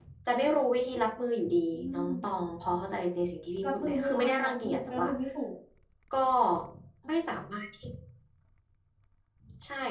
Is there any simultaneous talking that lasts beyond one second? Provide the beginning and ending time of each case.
3.6-5.1

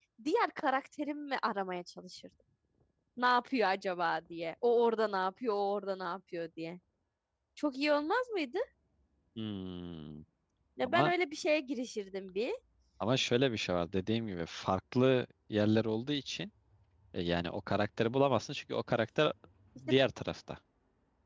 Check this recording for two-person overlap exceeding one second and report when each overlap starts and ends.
none

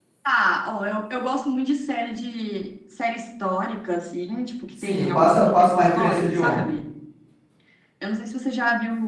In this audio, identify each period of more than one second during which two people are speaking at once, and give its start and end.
4.8-6.6

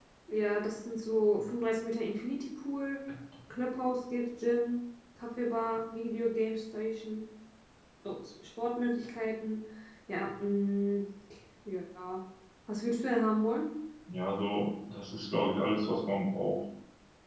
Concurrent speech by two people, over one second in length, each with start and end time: none

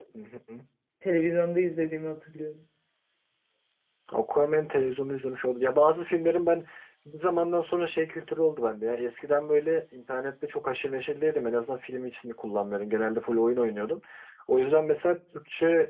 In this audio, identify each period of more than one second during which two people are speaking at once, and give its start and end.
none

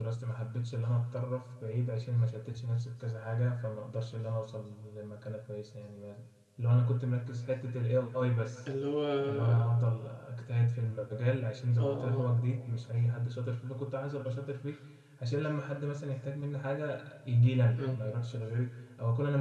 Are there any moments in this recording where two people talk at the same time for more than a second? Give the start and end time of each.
none

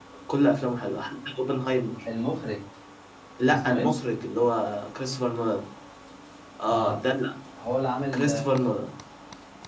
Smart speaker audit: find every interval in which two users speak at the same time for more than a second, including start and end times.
none

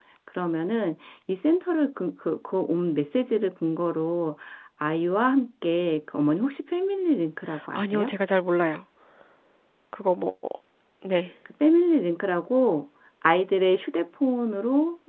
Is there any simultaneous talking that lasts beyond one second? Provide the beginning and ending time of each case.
none

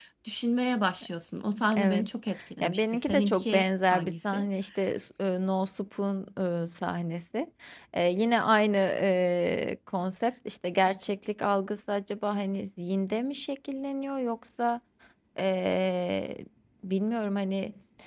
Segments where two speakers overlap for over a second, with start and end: 2.6-4.4

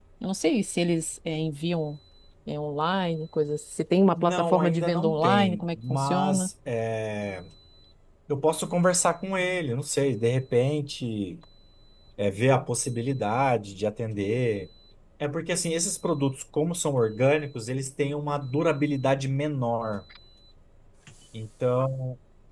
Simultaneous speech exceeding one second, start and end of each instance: 4.1-6.5

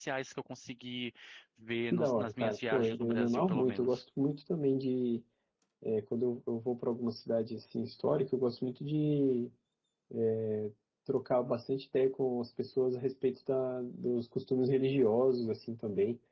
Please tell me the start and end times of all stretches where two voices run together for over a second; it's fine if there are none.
1.9-4.0

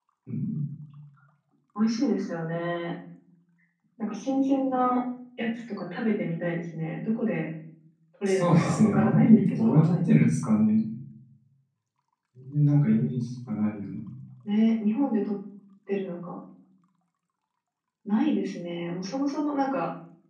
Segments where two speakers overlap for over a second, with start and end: 8.2-10.2

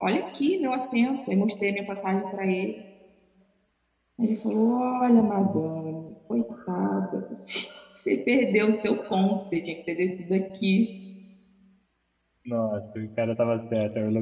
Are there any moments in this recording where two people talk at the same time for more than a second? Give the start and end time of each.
none

